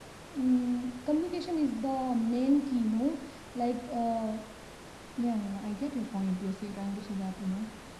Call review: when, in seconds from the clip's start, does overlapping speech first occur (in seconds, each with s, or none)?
none